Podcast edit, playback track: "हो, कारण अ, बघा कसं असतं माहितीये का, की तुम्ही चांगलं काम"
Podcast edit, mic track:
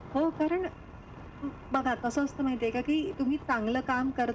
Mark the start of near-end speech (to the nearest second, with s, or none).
none